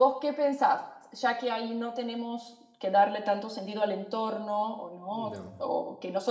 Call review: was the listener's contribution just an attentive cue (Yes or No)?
Yes